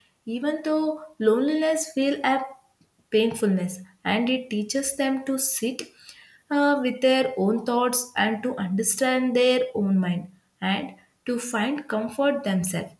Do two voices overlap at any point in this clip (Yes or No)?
No